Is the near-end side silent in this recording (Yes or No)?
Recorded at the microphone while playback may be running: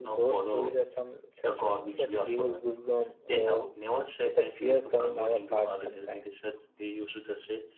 No